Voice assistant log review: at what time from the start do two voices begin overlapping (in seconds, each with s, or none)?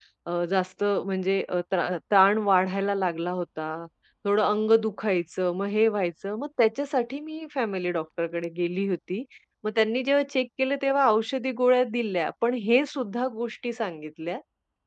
none